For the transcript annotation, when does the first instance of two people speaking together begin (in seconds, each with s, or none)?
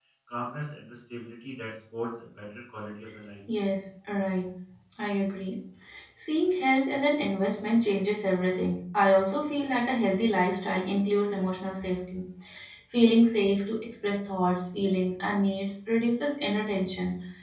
none